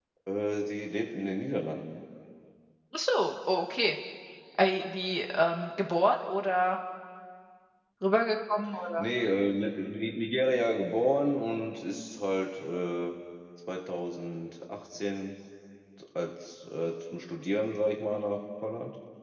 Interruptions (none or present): none